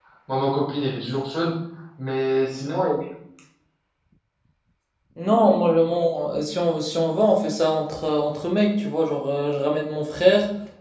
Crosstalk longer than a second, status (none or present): none